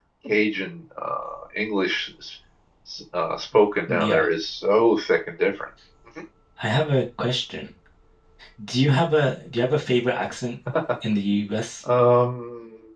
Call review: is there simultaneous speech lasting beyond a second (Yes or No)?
No